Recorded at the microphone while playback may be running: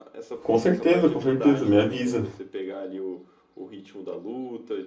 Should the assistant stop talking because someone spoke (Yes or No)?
Yes